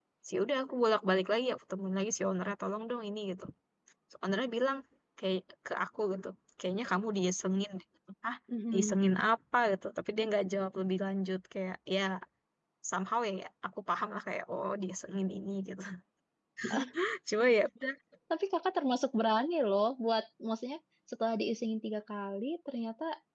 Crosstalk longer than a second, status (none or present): none